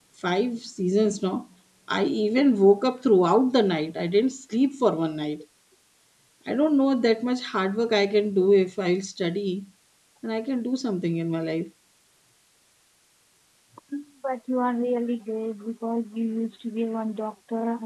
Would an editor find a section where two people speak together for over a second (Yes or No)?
No